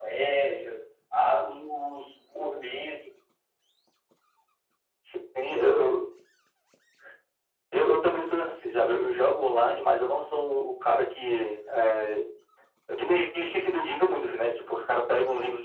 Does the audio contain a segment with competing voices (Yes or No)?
No